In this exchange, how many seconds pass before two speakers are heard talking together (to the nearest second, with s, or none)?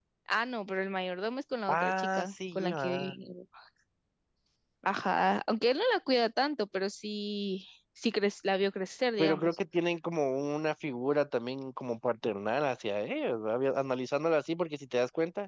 2 s